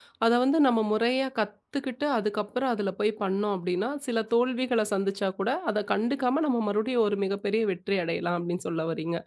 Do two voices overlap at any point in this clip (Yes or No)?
No